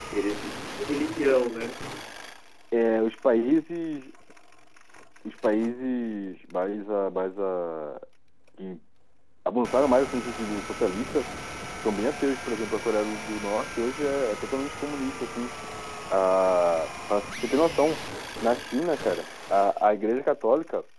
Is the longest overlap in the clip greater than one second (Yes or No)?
No